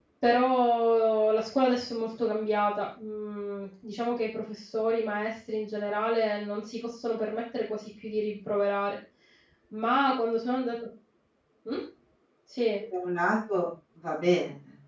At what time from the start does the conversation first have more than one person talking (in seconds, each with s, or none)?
none